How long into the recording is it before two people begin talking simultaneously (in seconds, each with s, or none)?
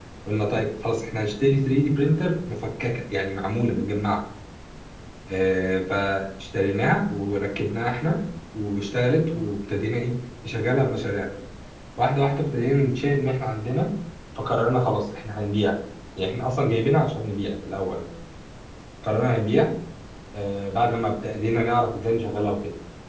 none